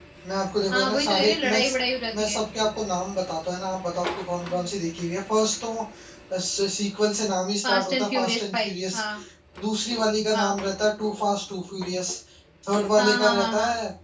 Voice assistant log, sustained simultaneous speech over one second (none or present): present